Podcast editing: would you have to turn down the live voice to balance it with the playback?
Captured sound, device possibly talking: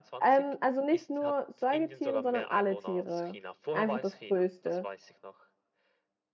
Yes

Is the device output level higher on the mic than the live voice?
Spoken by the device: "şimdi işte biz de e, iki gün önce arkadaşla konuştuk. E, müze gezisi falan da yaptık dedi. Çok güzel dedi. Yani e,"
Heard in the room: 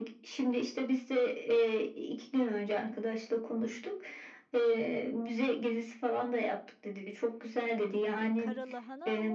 Yes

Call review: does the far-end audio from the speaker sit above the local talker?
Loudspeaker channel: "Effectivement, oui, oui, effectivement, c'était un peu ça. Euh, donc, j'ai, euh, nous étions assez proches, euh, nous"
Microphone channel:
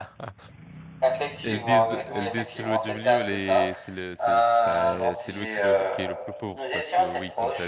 Yes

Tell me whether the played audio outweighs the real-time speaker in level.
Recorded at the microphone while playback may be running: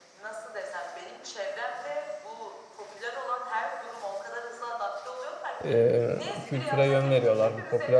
No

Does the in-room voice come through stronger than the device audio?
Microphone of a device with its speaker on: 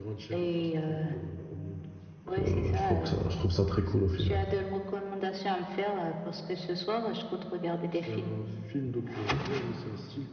Yes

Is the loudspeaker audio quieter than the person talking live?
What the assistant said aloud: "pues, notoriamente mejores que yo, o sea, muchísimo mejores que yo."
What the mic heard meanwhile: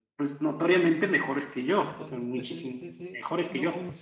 No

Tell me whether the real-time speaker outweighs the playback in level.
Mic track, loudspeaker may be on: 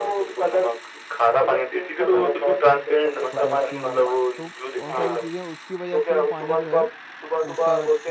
No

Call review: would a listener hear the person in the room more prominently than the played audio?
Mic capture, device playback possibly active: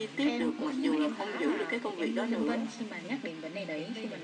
No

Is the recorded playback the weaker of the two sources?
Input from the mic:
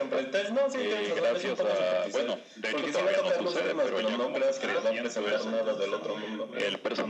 No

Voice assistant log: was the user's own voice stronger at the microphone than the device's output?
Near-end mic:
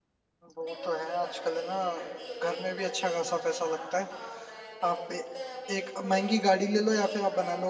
Yes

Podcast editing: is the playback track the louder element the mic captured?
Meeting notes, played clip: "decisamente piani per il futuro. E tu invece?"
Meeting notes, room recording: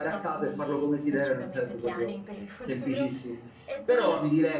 No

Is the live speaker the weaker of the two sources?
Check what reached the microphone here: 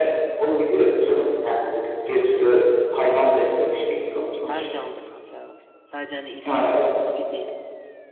Yes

